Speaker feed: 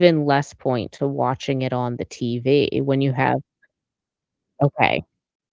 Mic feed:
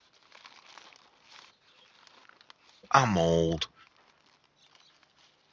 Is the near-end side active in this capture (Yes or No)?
Yes